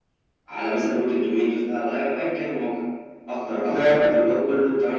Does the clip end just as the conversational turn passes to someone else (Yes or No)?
No